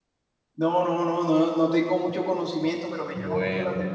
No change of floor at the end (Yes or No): Yes